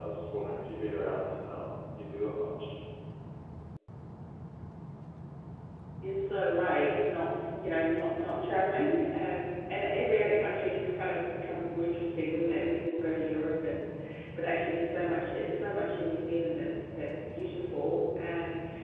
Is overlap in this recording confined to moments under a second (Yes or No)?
Yes